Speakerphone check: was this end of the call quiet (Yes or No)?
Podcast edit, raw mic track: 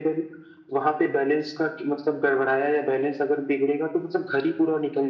Yes